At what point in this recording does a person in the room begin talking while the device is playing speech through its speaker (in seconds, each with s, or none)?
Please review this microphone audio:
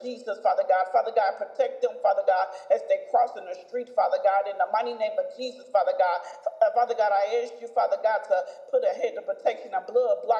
none